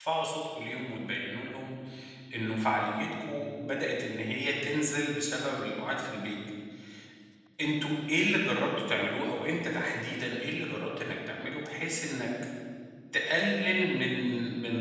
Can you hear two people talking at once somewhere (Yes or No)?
No